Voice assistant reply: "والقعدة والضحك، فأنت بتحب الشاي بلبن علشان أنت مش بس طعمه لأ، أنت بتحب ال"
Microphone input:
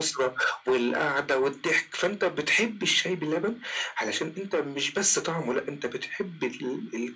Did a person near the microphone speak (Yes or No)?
No